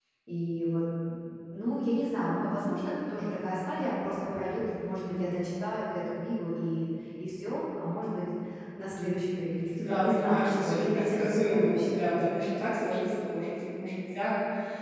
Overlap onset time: 9.8 s

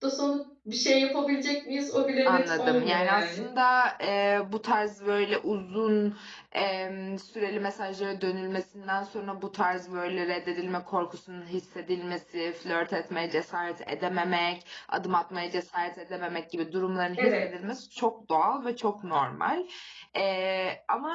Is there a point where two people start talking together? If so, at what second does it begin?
2.2 s

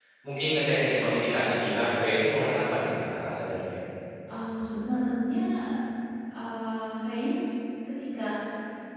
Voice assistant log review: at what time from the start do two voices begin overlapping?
none

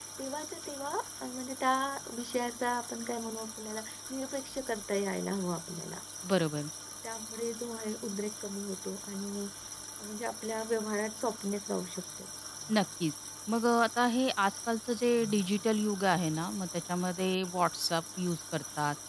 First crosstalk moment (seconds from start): none

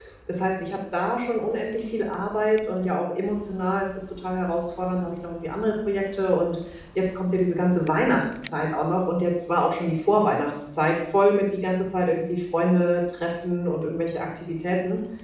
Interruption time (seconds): none

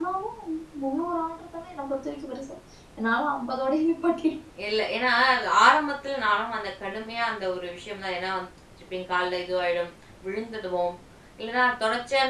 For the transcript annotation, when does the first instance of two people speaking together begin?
none

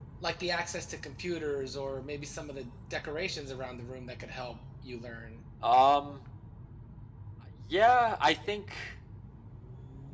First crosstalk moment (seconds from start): none

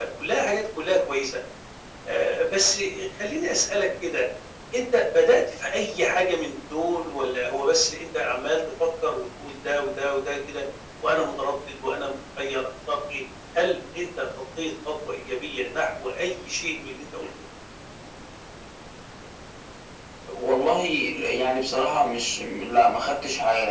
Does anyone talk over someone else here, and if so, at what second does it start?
none

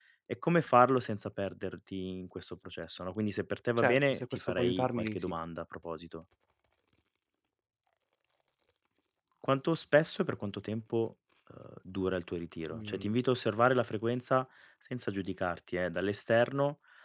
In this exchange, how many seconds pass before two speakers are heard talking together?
3.8 s

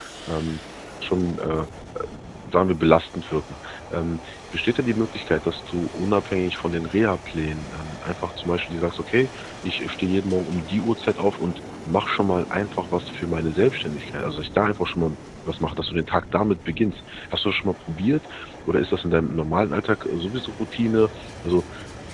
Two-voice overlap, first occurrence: none

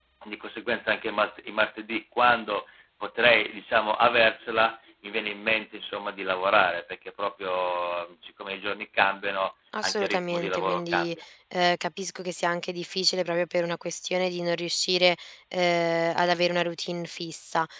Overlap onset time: 9.7 s

